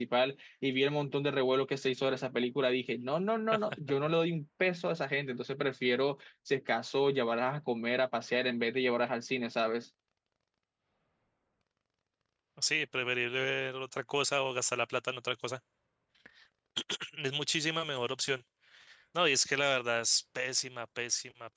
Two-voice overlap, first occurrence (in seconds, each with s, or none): none